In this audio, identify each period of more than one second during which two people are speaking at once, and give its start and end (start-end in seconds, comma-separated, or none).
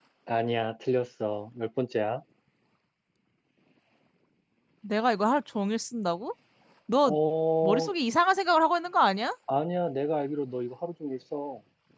none